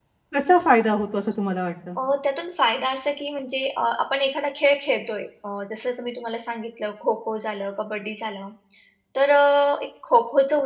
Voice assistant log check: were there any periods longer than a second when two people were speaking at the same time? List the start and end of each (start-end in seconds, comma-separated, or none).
none